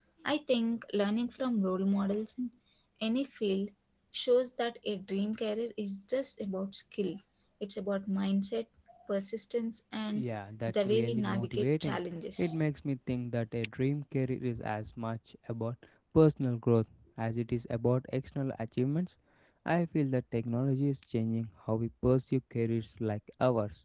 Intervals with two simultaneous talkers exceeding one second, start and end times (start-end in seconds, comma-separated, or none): 10.7-12.0